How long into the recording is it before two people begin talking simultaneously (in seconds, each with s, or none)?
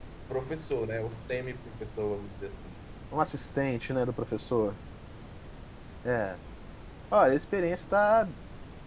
none